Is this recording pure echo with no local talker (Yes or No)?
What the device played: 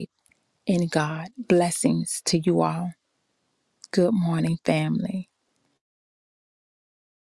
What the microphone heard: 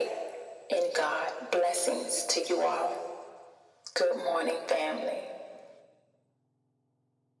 Yes